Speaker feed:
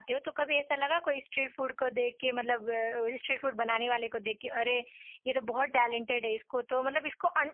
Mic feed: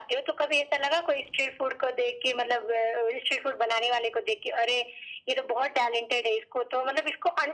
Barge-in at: none

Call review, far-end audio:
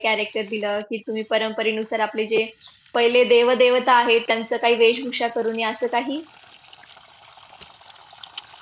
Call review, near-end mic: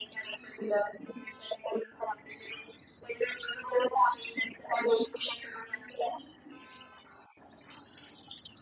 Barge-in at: none

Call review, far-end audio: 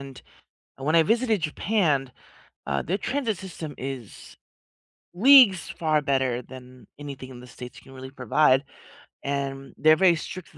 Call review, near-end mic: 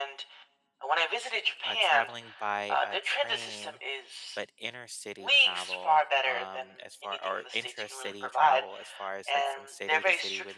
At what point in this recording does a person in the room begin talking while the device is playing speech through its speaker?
1.6 s

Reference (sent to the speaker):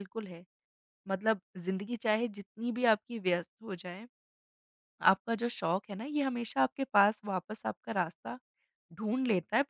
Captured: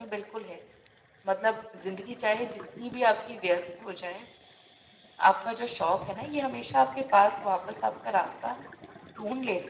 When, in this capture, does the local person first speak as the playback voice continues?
none

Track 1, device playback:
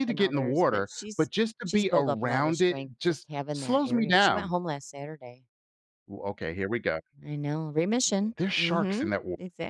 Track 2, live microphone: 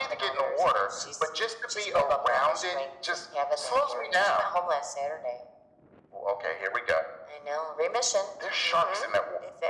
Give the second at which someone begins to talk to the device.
none

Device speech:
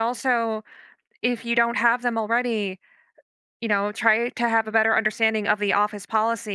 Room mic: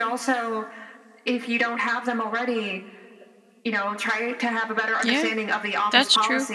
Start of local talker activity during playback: 5.0 s

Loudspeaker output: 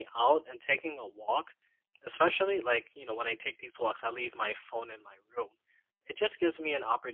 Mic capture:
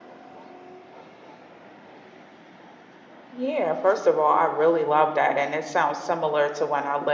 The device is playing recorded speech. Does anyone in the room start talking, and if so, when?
3.3 s

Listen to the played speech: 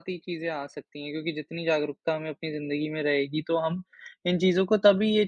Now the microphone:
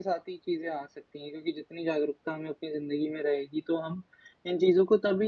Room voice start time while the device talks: none

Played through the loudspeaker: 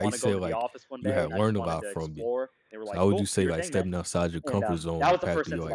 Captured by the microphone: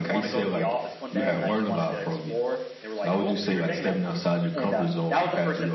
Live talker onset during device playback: none

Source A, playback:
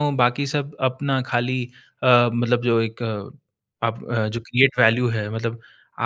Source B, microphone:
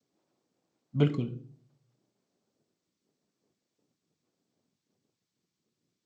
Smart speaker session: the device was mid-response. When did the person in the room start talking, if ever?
1.0 s

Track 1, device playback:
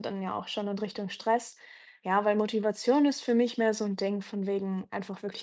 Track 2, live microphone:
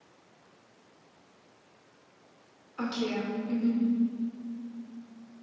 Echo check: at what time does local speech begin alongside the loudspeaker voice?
2.8 s

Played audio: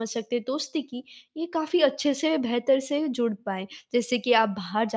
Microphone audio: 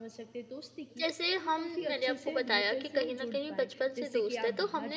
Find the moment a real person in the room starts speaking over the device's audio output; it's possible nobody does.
1.0 s

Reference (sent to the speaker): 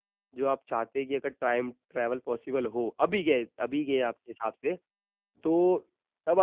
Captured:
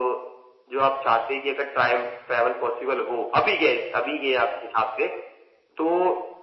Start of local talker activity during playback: none

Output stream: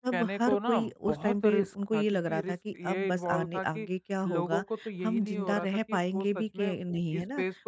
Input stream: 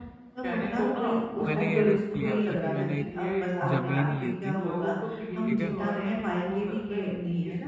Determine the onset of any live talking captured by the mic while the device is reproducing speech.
1.5 s

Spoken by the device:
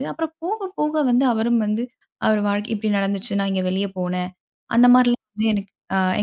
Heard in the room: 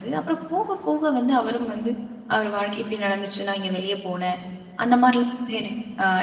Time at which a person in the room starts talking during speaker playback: none

